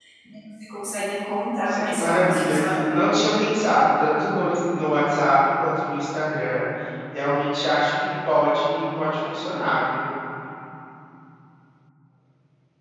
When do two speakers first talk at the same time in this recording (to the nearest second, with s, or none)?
2 s